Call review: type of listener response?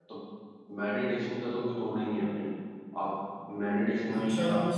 taking over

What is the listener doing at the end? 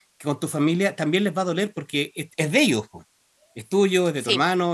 listening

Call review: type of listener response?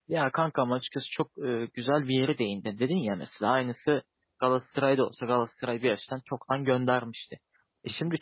listening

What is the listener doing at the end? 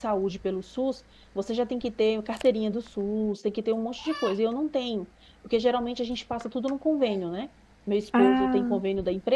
listening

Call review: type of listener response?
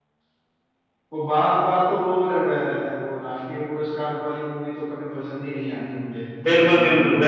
taking over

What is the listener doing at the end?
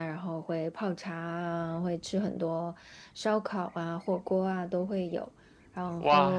taking over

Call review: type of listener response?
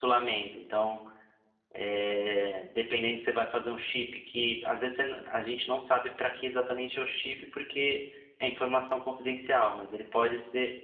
listening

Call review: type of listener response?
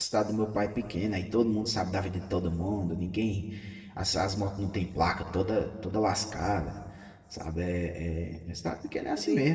taking over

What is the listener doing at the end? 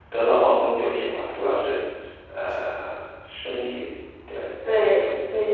taking over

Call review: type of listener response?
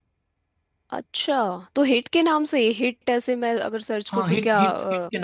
taking over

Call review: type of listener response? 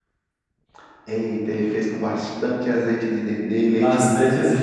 taking over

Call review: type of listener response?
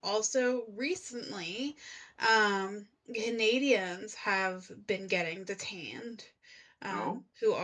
listening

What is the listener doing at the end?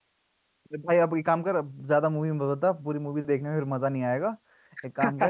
listening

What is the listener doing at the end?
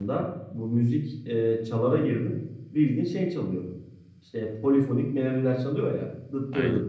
listening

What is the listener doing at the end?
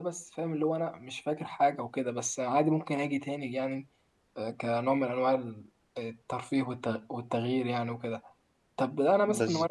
listening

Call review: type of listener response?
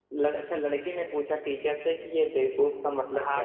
taking over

